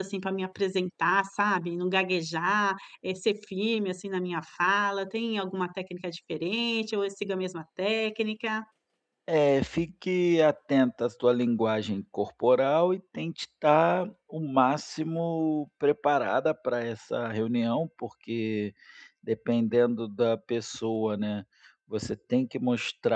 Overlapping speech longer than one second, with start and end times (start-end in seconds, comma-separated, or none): none